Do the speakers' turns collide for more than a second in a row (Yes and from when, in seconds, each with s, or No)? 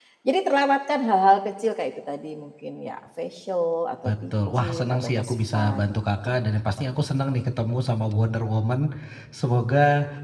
Yes, from 4.0 s